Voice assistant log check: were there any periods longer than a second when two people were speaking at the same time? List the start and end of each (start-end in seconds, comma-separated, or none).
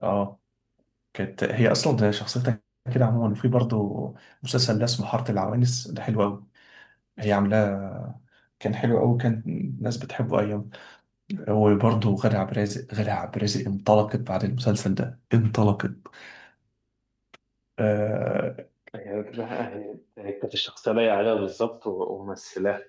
none